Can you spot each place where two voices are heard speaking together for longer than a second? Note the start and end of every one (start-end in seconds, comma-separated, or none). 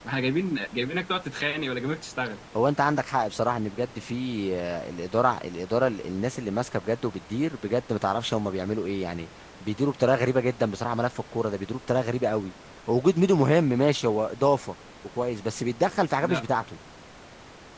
none